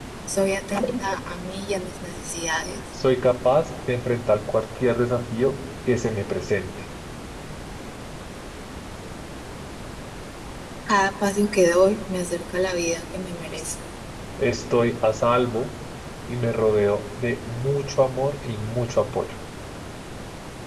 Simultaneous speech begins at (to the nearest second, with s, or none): none